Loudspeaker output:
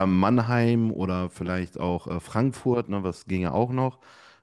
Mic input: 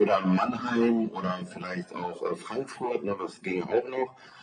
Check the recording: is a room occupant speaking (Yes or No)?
No